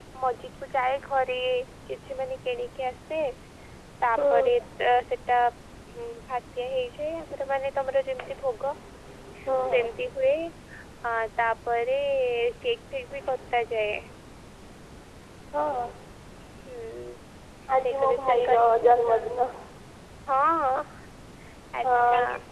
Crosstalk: present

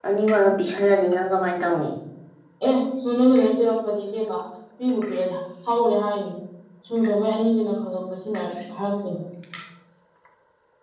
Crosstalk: none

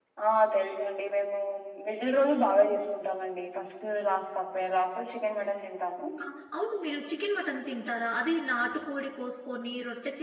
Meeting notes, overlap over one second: none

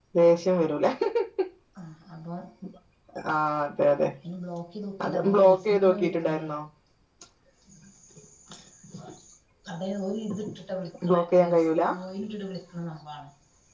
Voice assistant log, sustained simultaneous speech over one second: present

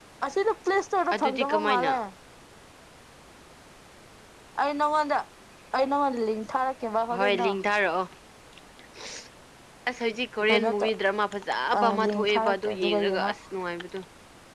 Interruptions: present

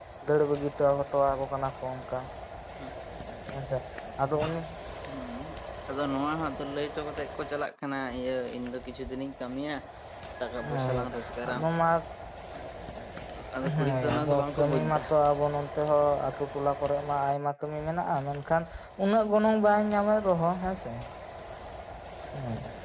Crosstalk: present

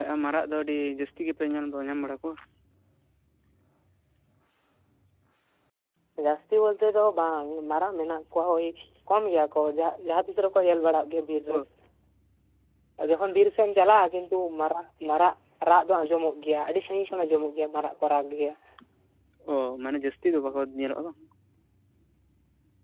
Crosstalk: none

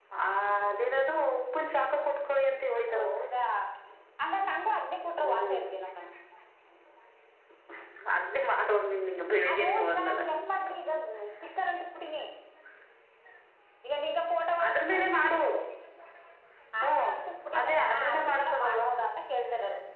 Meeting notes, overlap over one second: present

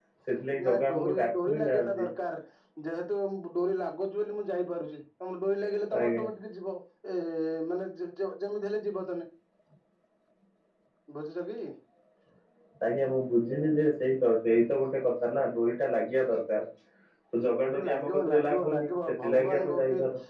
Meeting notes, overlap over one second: present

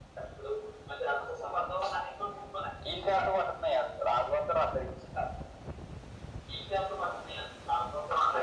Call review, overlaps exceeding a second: none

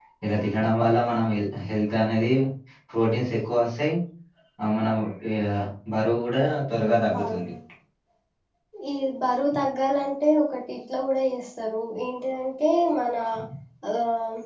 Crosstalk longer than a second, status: none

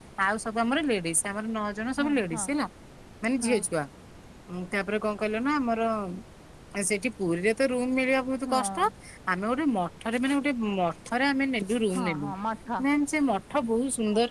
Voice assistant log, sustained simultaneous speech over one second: none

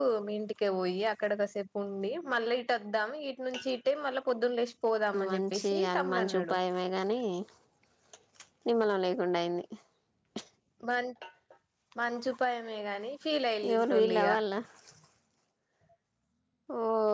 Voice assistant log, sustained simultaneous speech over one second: present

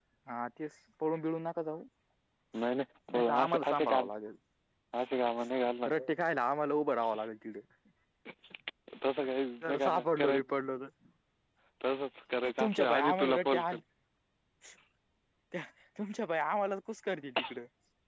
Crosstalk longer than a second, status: present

